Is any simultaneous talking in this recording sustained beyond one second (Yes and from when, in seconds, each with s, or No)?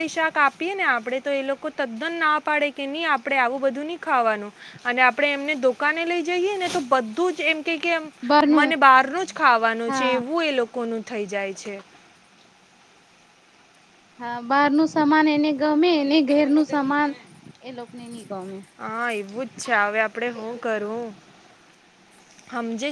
No